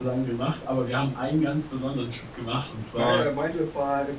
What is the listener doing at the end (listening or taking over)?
taking over